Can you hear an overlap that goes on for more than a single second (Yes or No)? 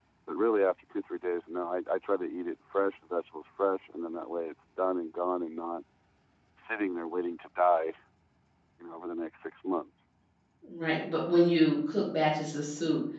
No